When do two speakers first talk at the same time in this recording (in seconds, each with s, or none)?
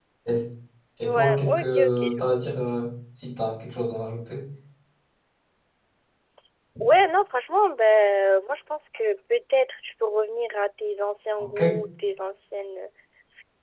1.0 s